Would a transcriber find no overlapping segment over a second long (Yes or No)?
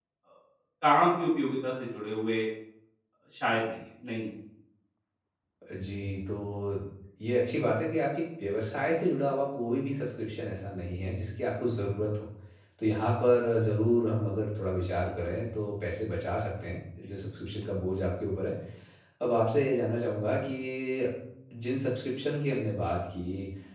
Yes